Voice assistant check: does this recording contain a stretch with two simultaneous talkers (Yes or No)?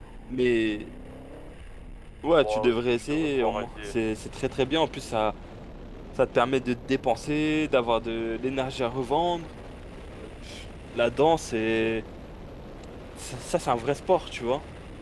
Yes